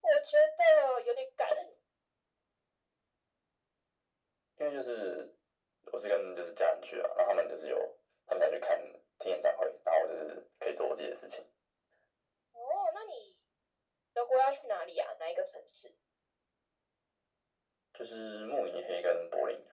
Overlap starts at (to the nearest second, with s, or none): none